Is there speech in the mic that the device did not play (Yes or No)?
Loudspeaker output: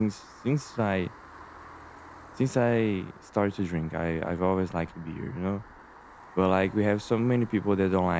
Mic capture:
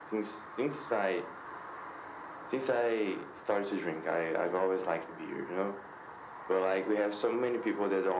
No